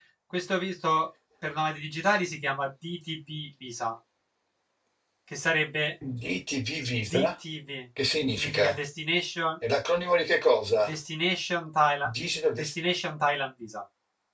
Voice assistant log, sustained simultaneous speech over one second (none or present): none